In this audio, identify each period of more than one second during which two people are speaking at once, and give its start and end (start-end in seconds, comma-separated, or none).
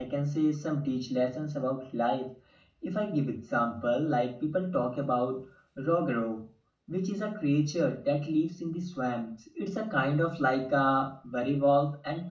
none